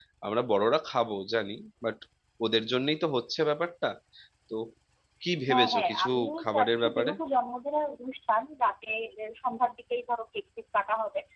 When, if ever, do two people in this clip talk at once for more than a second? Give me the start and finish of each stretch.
5.5-7.1

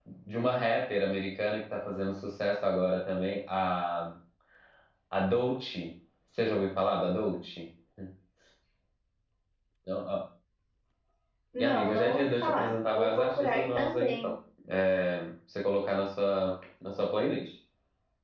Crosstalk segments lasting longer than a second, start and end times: 11.6-14.3

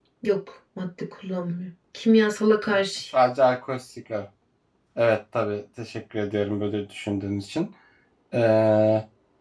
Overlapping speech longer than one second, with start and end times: none

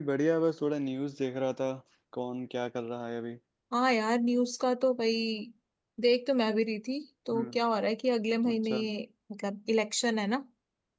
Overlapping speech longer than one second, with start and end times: none

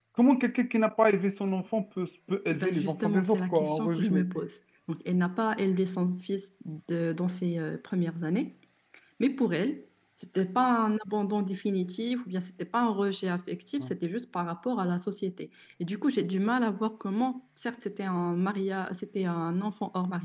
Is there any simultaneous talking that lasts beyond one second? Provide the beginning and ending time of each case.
2.5-4.2

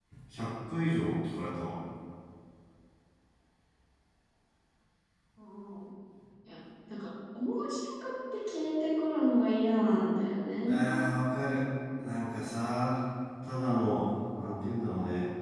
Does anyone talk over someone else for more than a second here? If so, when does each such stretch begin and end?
none

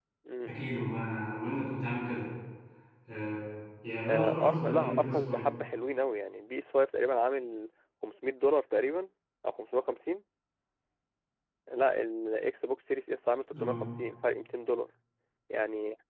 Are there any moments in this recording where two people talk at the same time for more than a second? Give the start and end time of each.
4.1-5.4

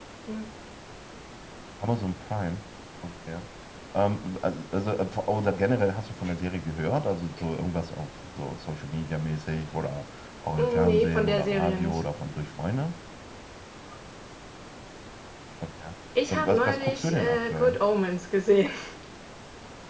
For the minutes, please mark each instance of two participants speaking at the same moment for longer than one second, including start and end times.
10.6-12.0, 16.3-17.8

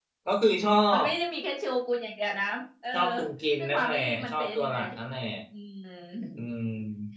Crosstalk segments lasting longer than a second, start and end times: 3.6-4.8

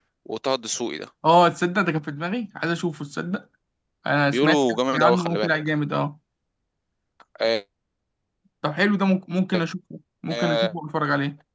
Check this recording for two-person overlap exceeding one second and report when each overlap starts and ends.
4.3-5.5

